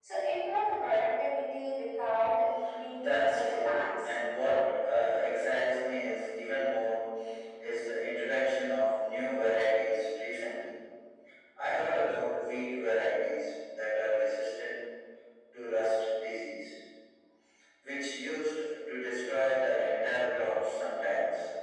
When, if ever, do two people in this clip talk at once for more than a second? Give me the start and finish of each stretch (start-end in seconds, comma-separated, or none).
2.9-4.2